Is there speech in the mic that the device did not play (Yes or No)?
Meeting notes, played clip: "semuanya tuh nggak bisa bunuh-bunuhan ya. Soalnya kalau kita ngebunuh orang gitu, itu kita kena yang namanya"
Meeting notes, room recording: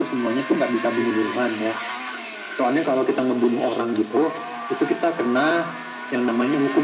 Yes